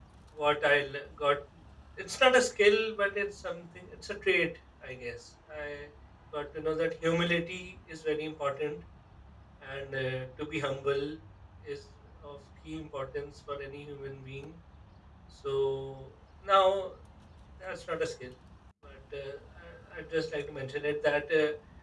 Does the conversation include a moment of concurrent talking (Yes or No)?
No